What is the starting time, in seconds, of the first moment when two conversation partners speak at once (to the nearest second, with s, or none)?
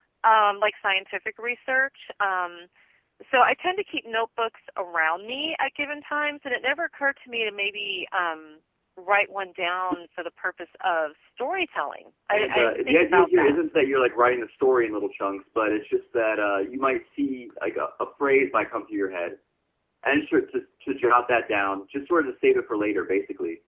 12 s